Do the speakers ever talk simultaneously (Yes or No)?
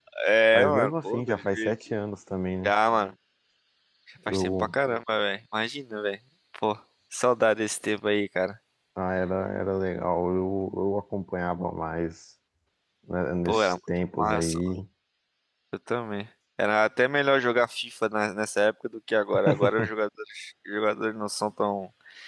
Yes